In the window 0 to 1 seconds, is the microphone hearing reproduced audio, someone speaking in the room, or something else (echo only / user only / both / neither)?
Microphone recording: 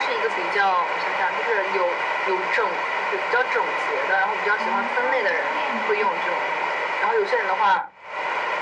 echo only